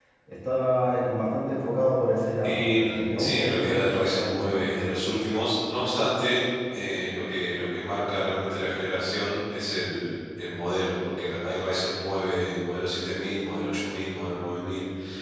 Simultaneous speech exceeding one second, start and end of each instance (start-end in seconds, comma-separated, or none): 2.4-4.9